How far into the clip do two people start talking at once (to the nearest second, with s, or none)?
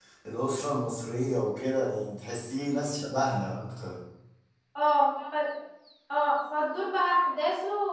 none